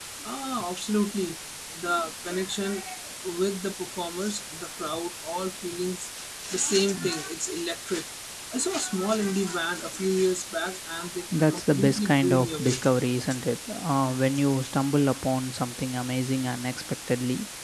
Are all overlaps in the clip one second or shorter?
No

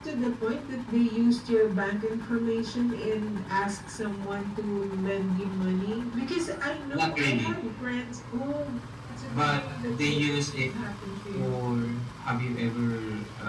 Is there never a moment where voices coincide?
No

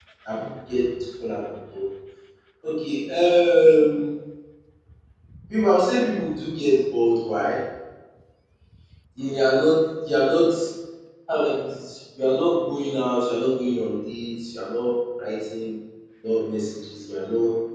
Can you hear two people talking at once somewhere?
No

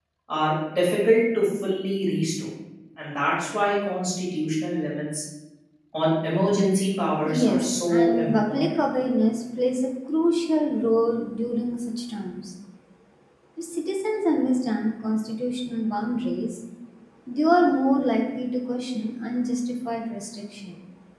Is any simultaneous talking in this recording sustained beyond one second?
Yes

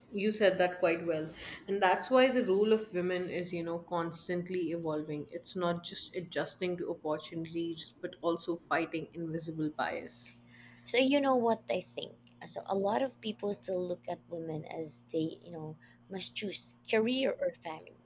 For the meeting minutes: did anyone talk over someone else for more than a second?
No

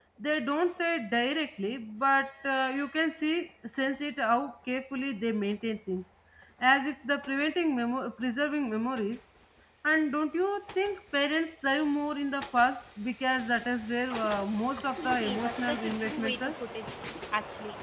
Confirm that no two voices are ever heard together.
No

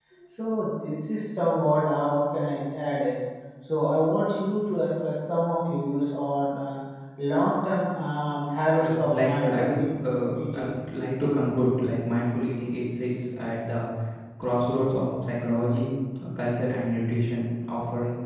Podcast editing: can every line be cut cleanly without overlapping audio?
No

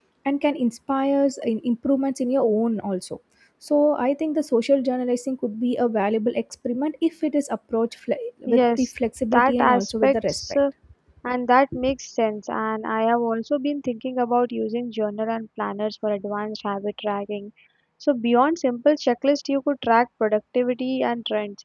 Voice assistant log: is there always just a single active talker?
No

